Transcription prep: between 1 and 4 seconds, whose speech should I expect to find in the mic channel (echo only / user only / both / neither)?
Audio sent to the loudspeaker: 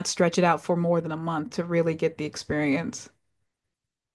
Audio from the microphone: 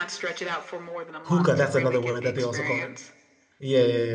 both